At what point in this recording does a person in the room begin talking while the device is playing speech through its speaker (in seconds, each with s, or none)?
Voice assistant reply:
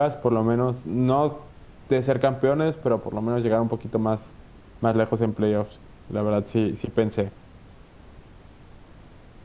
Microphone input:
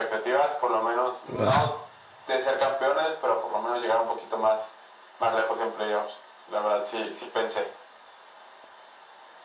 1.3 s